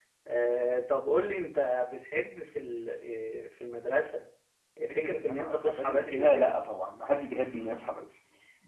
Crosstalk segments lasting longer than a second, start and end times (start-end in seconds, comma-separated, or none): 5.0-6.6